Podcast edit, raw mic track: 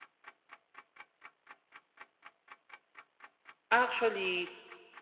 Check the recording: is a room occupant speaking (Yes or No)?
Yes